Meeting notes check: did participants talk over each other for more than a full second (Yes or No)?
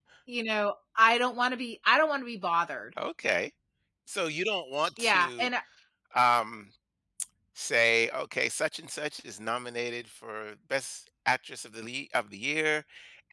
No